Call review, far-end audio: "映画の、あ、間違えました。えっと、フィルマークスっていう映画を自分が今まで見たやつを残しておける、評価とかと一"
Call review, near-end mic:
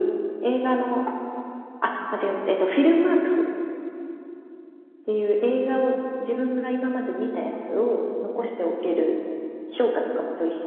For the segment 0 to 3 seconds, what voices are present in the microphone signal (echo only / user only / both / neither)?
echo only